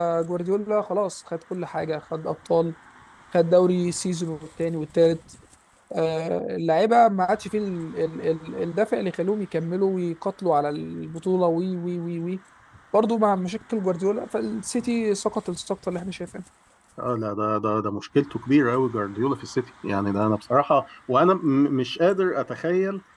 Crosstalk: none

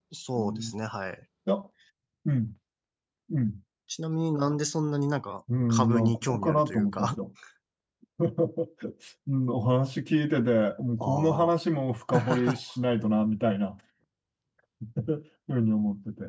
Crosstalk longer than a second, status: present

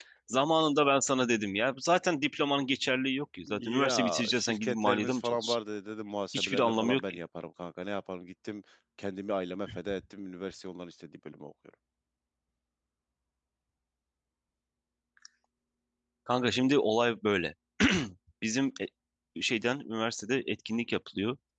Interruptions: present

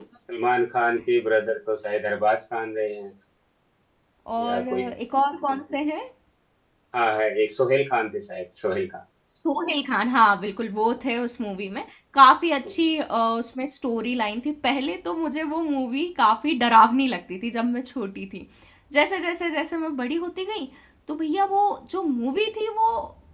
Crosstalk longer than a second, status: none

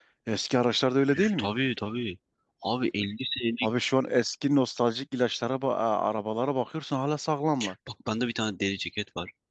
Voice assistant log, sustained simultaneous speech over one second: none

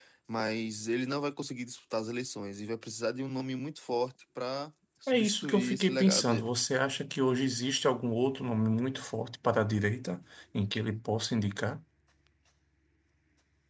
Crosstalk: present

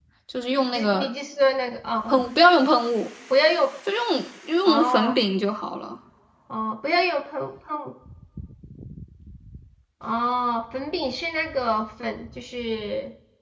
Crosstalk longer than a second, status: none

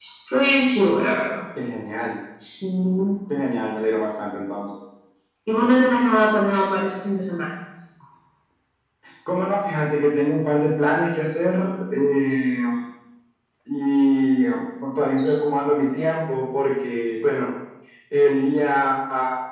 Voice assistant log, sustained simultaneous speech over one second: none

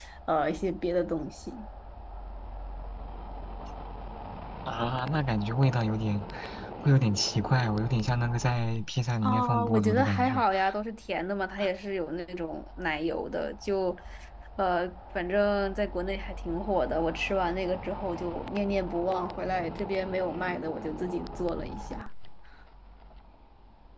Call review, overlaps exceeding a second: present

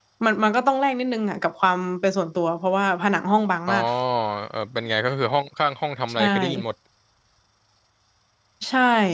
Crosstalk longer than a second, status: none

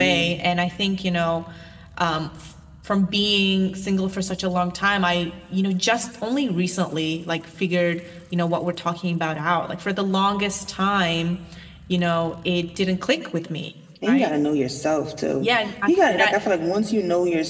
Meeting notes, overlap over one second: none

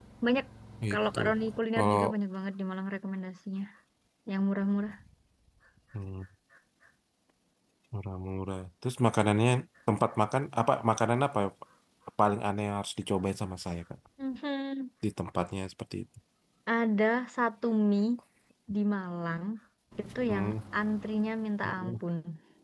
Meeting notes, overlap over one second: none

